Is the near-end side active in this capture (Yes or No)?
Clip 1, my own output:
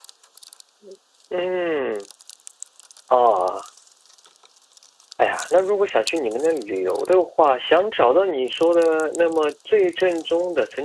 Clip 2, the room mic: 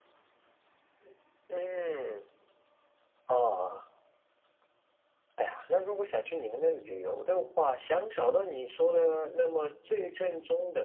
No